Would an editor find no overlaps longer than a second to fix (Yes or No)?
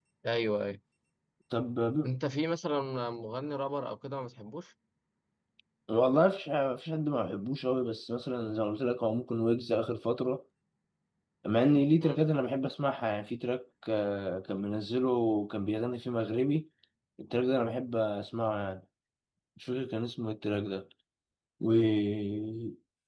Yes